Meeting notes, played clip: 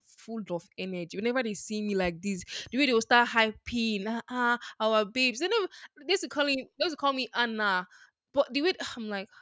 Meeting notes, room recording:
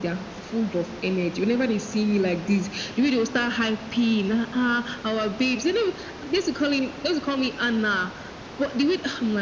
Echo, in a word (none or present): present